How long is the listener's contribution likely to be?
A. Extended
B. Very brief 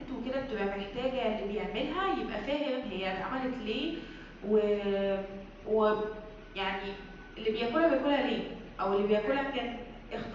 B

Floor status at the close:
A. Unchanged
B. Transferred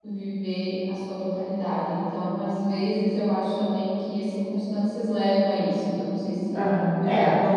B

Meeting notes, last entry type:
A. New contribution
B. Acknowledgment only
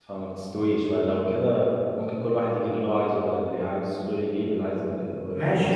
A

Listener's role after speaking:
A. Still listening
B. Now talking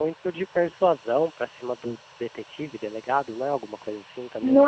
B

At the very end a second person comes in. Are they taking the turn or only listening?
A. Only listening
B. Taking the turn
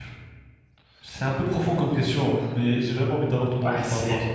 B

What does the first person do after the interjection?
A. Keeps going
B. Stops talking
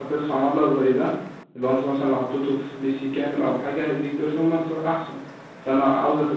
A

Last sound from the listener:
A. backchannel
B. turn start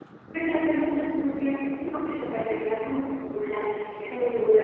B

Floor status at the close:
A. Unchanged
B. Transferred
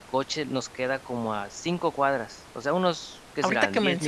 B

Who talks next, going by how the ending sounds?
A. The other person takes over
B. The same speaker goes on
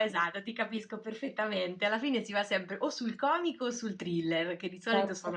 B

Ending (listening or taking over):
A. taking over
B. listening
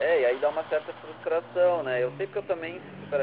B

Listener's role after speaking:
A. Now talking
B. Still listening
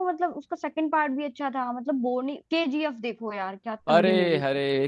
A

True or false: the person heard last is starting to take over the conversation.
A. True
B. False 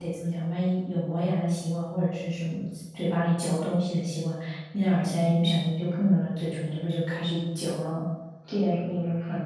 A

